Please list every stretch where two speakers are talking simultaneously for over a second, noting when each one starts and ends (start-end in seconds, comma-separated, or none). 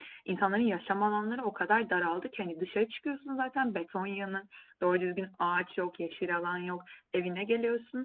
none